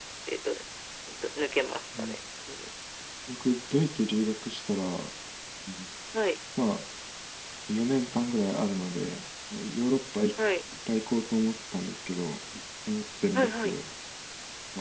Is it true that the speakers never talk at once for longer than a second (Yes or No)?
Yes